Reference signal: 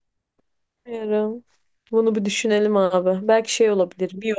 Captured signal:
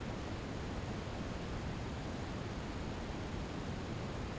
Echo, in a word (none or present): none